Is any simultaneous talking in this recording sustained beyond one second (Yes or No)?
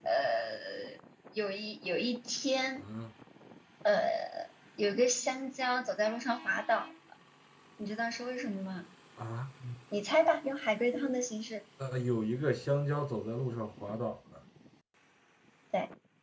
No